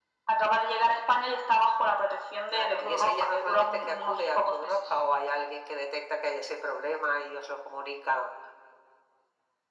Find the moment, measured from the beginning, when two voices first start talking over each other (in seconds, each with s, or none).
2.5 s